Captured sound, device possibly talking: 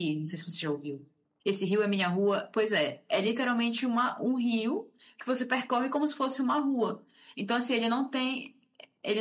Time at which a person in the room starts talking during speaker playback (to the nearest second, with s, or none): none